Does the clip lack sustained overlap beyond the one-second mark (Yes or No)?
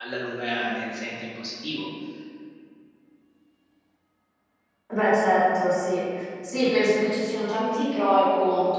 Yes